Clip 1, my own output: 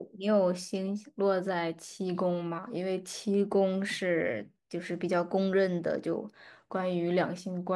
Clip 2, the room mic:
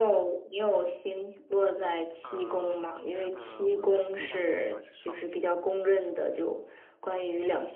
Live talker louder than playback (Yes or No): No